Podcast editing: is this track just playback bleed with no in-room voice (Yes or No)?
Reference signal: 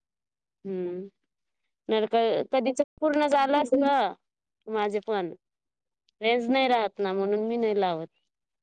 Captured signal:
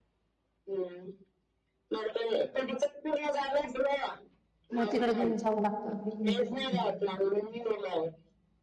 No